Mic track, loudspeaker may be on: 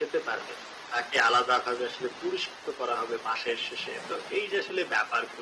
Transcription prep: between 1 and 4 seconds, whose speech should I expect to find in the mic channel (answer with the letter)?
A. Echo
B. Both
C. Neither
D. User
A